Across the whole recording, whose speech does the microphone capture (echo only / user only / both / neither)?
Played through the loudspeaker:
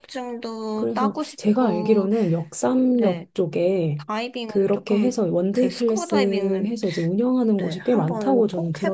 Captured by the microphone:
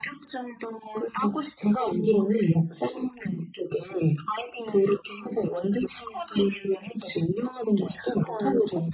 echo only